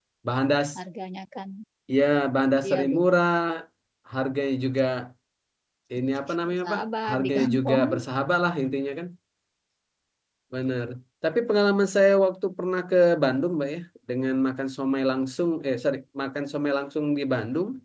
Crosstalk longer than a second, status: present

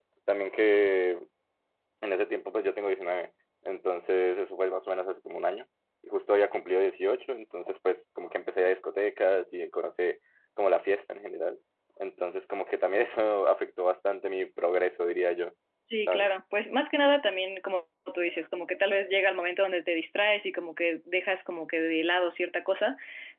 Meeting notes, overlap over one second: none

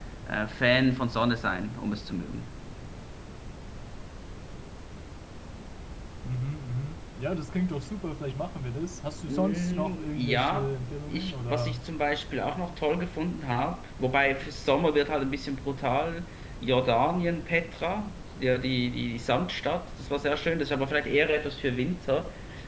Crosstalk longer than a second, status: present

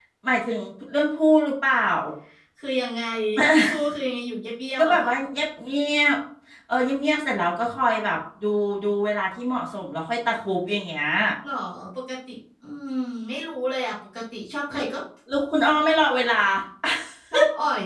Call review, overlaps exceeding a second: none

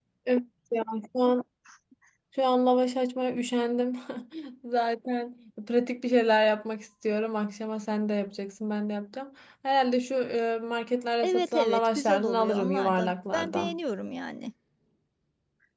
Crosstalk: present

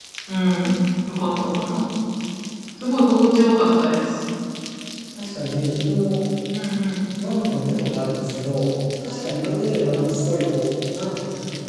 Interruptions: none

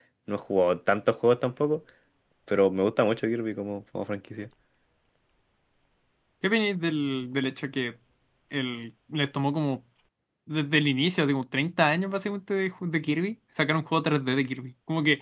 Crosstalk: none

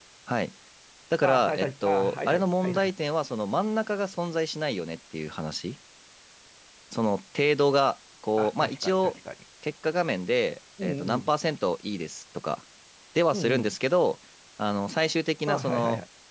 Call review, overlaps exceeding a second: present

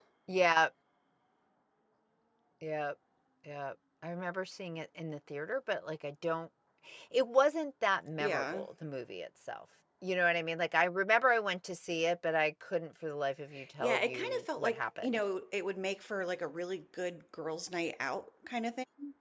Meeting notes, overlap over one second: present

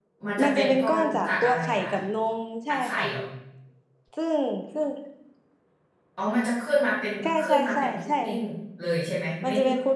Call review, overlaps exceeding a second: present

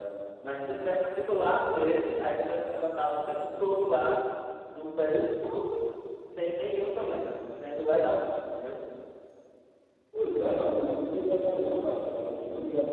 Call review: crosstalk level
none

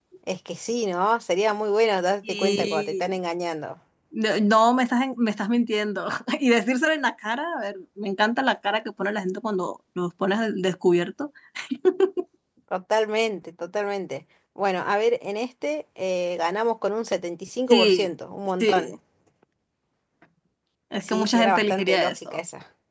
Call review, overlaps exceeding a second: present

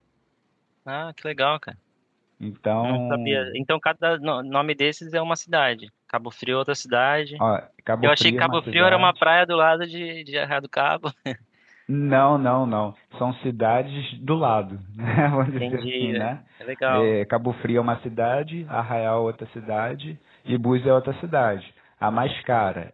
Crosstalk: present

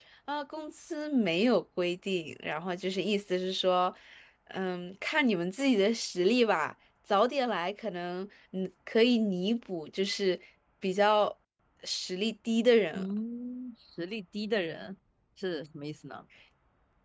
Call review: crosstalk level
none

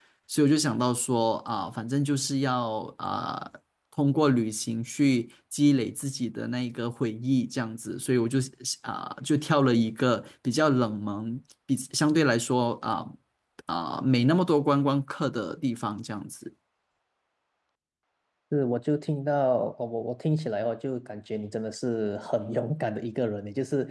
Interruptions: none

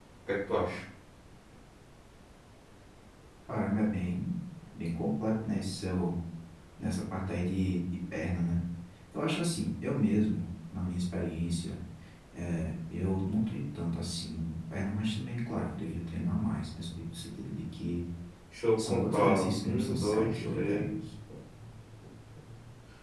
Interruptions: present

